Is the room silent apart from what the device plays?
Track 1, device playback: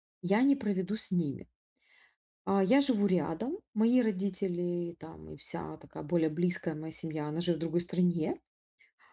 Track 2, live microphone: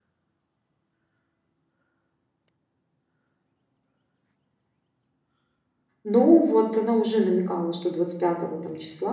No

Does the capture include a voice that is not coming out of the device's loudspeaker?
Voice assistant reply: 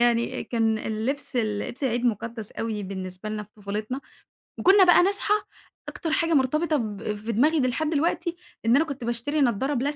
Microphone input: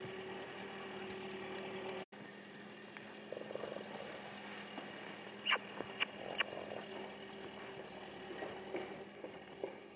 No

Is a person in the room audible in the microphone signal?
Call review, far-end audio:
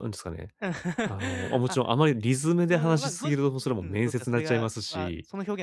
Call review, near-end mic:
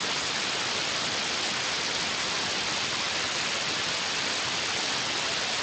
No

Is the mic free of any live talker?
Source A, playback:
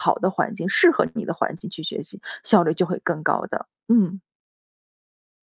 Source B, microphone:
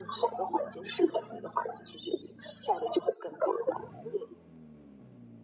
Yes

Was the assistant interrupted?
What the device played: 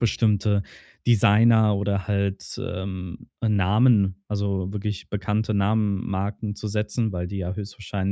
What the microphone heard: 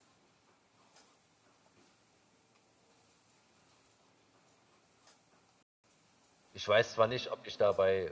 Yes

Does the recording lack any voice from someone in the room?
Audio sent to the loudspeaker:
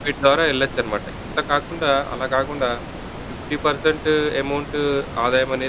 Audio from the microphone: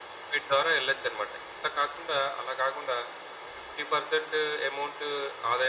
Yes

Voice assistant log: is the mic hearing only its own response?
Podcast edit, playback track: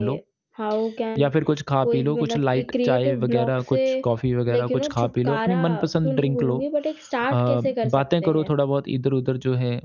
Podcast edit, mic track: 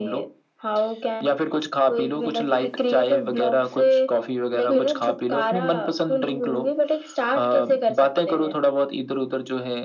No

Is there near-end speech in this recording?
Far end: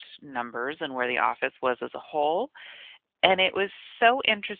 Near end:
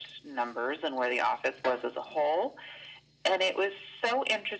No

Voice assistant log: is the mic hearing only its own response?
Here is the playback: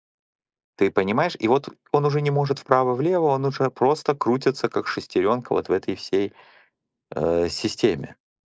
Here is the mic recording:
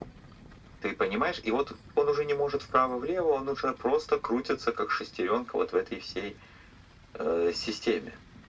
Yes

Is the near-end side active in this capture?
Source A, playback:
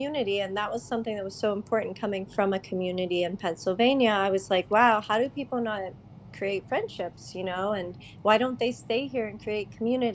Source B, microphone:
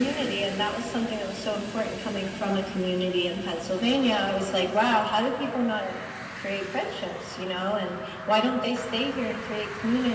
No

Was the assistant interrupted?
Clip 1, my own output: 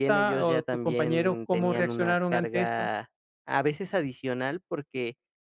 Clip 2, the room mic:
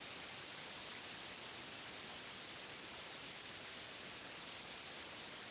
No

